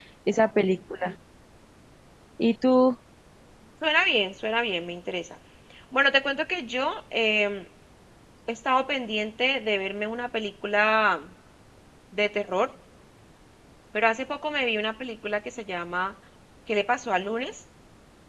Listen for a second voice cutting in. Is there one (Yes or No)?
No